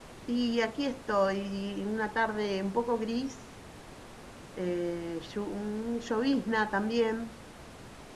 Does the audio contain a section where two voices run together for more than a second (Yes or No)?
No